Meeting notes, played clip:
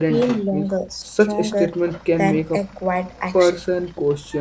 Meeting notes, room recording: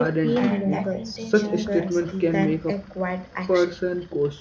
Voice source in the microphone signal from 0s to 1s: both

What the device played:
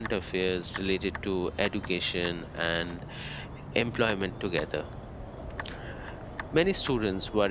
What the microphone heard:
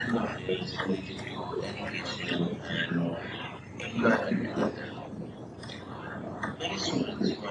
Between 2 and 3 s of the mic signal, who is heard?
echo only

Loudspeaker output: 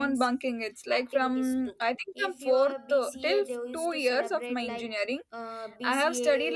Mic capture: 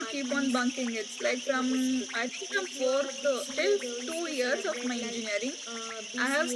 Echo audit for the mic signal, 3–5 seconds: echo only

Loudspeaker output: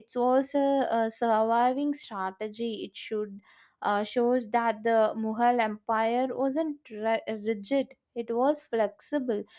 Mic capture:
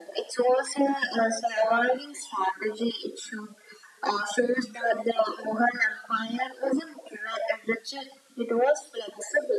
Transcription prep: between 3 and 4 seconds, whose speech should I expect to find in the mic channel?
echo only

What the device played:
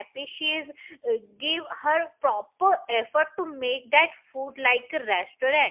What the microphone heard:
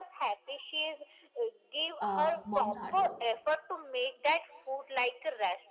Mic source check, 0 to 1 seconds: echo only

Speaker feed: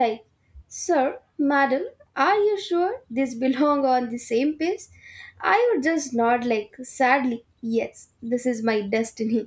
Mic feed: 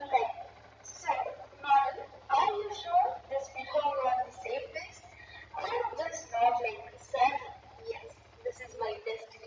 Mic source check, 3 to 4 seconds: echo only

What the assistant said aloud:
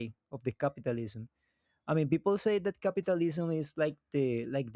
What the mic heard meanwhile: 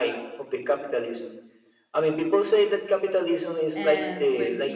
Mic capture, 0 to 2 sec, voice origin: echo only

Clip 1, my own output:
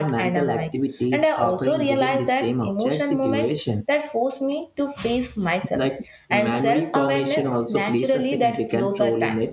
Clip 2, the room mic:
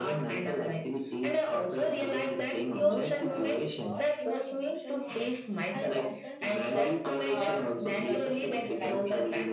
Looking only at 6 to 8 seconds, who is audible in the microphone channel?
both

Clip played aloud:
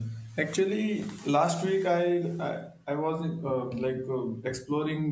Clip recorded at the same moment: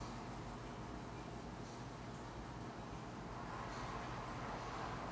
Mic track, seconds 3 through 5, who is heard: neither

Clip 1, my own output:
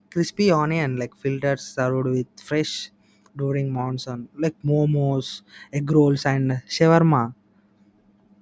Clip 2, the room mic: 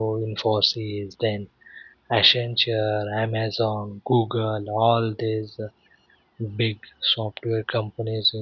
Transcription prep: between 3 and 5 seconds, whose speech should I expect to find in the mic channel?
user only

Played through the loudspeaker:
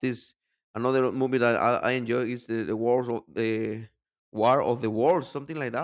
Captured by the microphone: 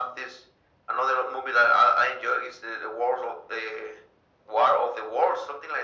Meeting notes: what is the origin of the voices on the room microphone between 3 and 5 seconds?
echo only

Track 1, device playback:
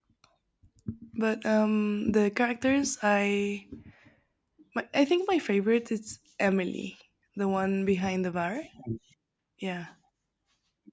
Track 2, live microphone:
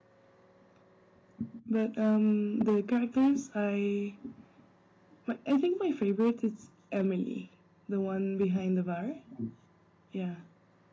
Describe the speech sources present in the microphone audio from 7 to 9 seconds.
echo only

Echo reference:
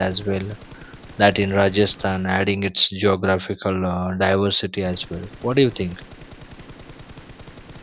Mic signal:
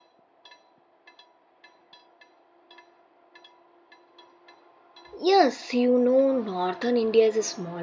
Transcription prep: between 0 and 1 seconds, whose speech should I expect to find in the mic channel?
neither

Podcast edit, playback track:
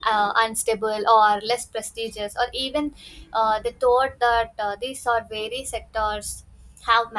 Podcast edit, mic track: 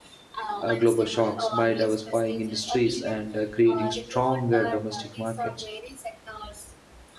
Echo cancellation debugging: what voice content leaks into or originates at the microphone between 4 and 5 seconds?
both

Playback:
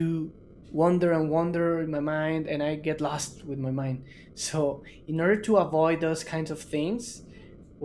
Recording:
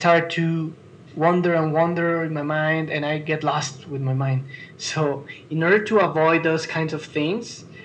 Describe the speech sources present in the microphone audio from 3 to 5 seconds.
echo only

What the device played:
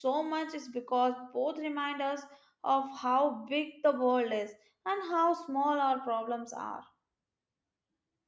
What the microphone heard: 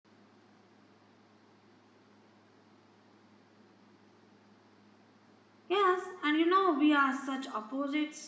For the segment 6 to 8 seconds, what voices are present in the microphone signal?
user only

